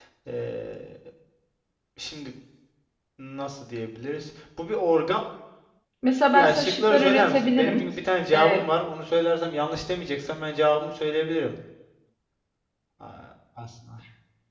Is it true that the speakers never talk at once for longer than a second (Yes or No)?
No